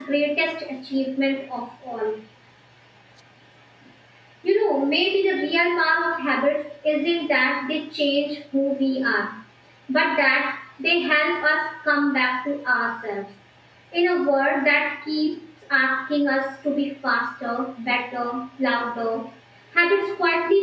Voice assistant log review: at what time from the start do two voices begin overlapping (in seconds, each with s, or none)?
none